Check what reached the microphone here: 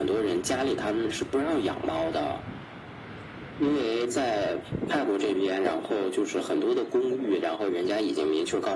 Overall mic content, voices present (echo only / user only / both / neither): echo only